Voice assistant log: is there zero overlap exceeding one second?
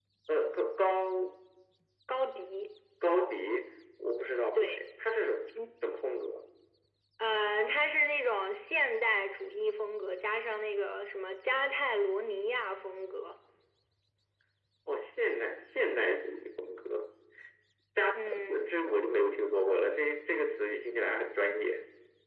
Yes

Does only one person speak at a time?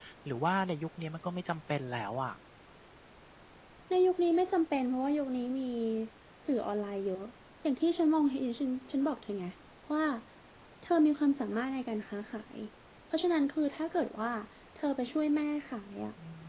Yes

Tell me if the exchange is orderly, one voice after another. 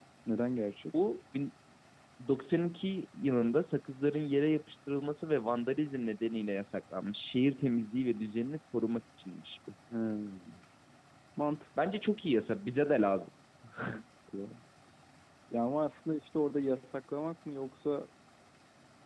Yes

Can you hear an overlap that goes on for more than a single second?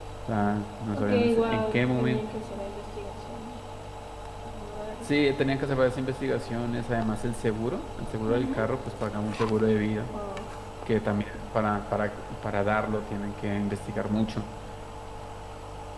Yes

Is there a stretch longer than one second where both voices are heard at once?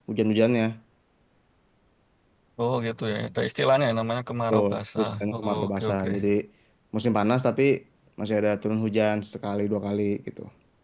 Yes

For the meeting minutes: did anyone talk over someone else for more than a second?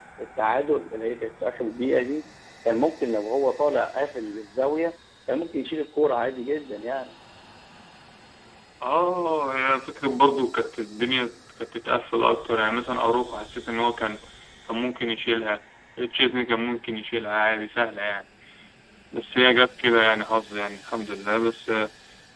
No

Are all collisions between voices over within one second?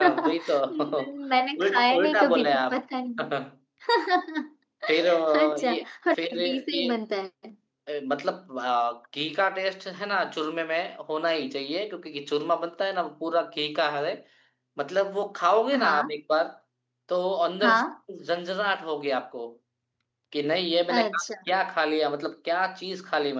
No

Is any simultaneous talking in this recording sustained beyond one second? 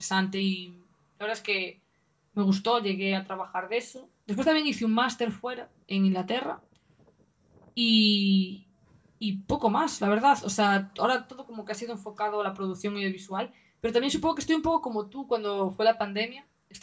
No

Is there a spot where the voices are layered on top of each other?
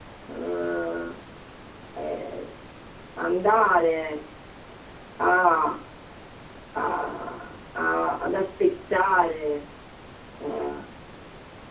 No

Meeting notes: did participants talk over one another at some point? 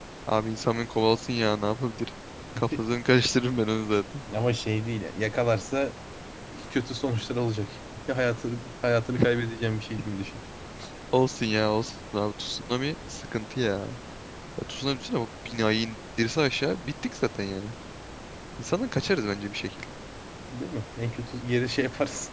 No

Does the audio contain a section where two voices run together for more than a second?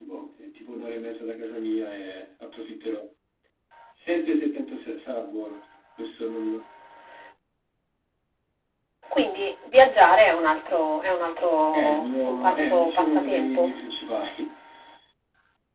Yes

